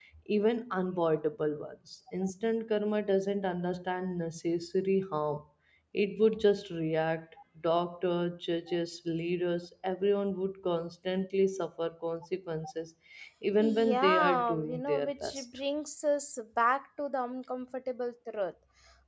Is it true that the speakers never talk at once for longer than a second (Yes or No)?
No